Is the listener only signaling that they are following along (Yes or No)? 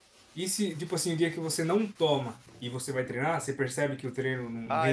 No